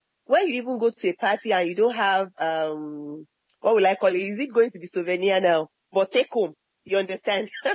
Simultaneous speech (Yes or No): No